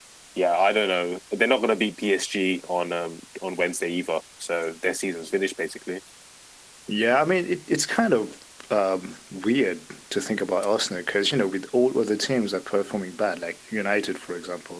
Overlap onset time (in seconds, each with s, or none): none